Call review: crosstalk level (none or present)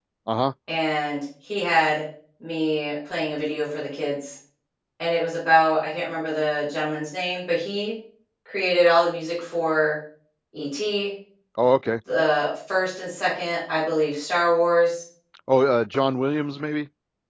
none